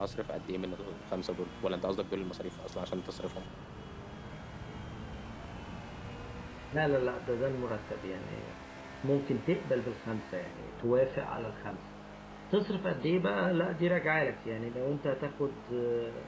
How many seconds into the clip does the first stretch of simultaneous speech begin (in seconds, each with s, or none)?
none